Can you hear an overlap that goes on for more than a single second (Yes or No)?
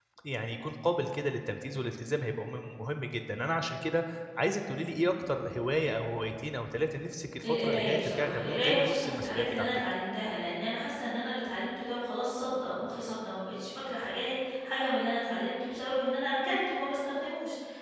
Yes